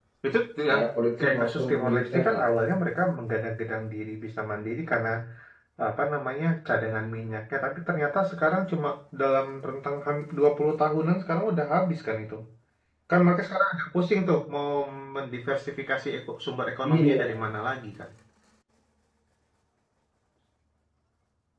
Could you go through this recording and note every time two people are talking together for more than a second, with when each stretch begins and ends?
1.2-2.4

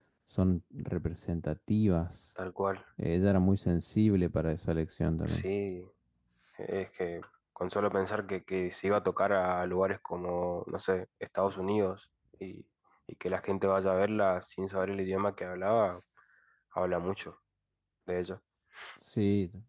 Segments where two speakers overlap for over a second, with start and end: none

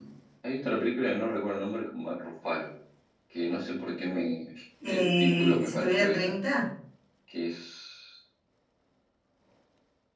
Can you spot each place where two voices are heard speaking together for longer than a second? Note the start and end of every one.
4.8-6.3

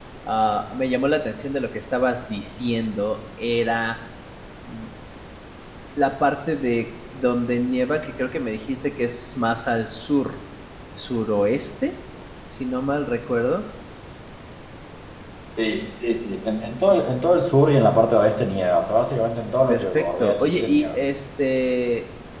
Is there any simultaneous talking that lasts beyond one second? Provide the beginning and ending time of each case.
19.7-21.0

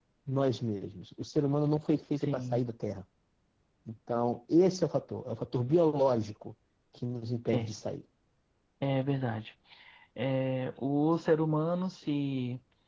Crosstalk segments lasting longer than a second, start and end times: none

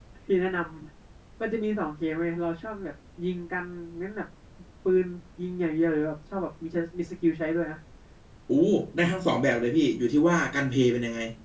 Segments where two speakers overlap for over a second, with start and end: none

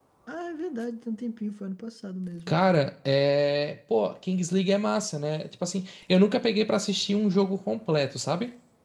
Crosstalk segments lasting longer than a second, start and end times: none

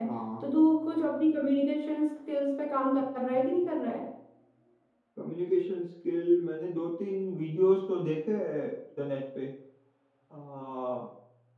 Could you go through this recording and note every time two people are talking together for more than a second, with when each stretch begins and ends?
none

